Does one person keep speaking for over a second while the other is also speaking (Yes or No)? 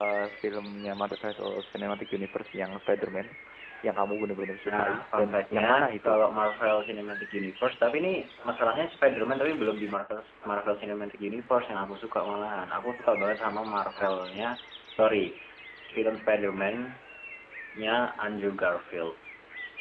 Yes